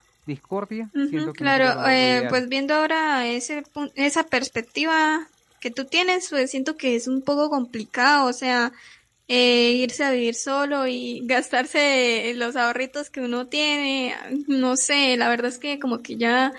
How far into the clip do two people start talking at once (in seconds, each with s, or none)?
1.1 s